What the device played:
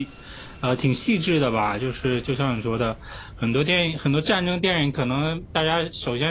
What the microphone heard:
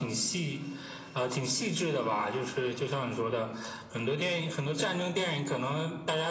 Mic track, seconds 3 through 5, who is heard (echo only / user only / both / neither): echo only